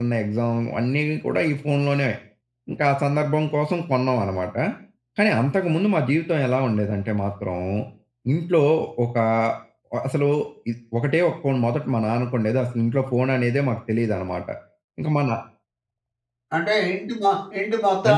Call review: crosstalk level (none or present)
none